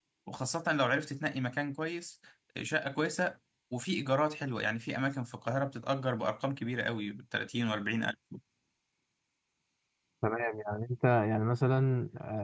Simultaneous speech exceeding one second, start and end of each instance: none

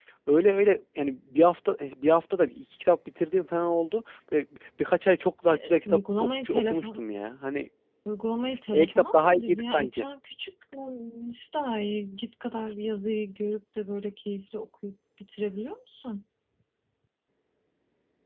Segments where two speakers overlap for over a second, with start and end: 5.5-7.0, 8.7-10.0

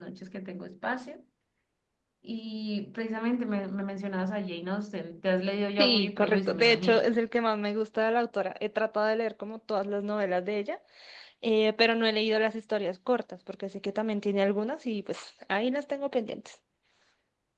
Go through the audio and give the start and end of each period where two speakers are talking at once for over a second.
5.8-7.1

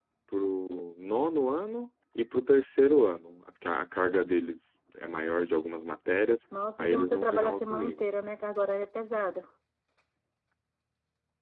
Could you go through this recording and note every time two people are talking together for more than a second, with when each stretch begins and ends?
6.8-8.0

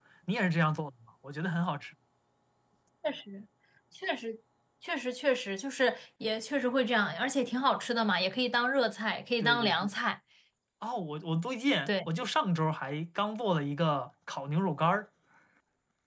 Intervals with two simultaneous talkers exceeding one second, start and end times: none

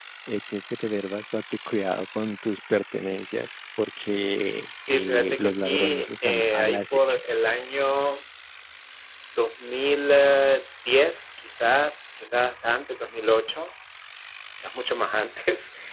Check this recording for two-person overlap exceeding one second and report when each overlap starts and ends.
4.9-7.2

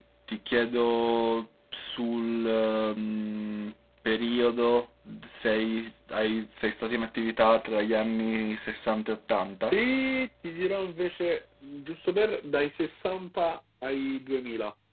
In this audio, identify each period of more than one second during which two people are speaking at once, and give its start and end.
none

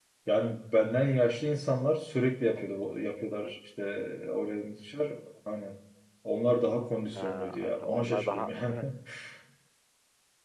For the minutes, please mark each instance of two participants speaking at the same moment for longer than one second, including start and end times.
7.2-8.8

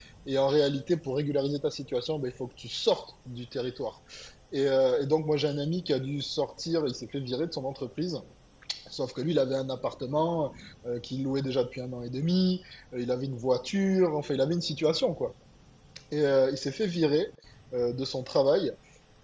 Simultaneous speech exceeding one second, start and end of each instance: none

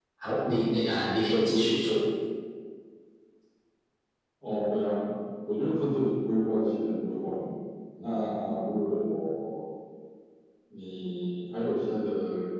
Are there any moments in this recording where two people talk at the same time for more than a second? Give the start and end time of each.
none

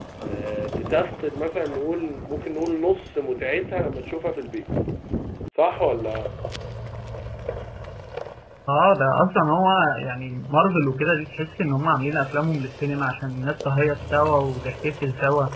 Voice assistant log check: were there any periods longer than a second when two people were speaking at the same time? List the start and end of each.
none

